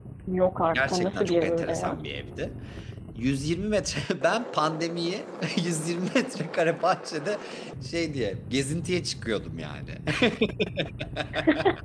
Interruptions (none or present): present